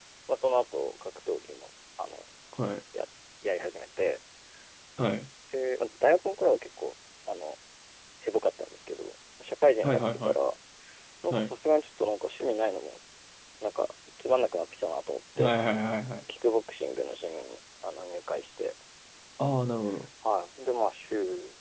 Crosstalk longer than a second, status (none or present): none